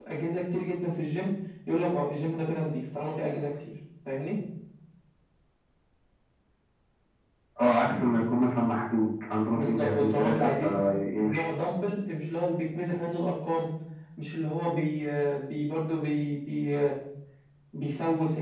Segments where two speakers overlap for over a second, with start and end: 9.5-10.8

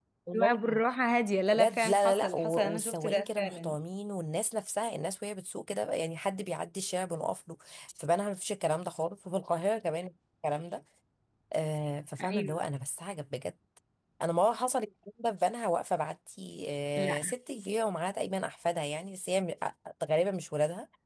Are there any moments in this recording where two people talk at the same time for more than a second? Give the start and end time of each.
1.5-3.8

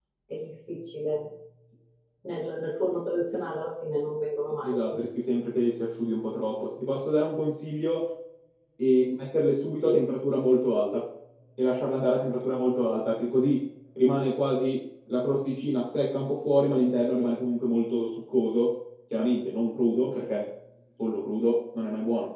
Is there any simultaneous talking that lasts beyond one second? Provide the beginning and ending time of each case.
none

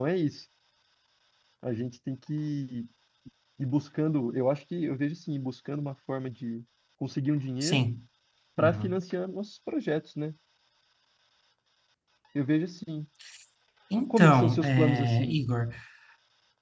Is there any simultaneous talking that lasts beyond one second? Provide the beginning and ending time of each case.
14.1-15.4

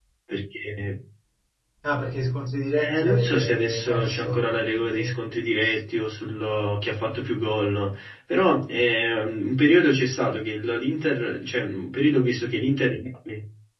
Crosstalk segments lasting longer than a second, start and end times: 2.8-5.1

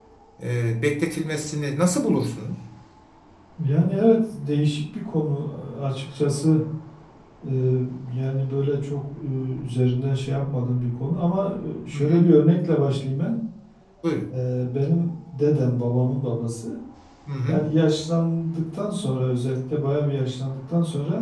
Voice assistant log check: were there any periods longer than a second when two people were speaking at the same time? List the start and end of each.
none

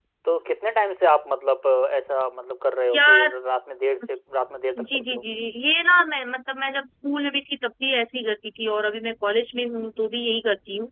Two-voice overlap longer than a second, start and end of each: none

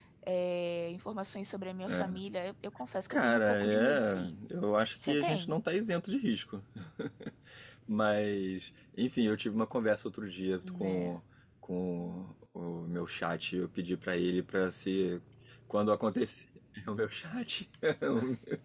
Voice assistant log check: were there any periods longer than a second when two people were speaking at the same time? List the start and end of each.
3.1-4.4

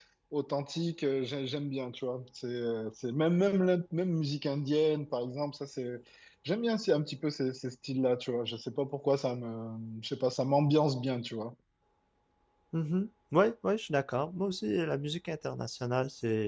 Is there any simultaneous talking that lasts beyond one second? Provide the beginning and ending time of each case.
none

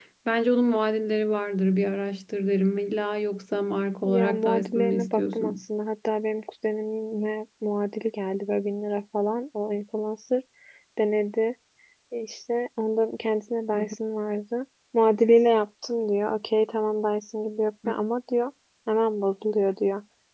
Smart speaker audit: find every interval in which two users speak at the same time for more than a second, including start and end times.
4.0-5.6

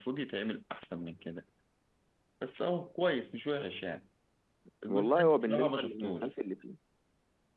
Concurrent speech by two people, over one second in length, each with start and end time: 4.9-6.3

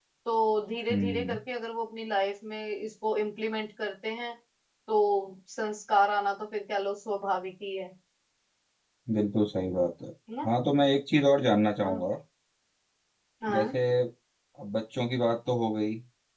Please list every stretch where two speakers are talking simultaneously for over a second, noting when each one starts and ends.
none

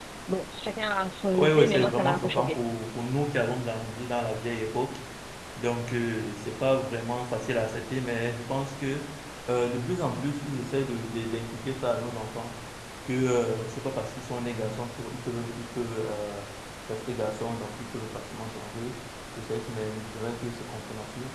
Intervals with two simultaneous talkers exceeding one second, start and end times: 1.4-2.6

